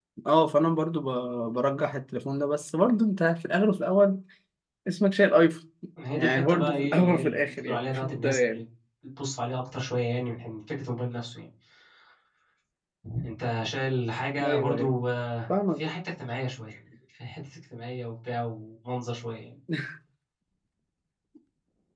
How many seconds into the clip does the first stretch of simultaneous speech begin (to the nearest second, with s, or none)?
6 s